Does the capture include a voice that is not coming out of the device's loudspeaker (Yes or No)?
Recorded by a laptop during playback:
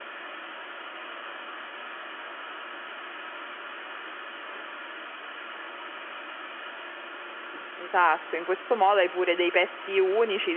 Yes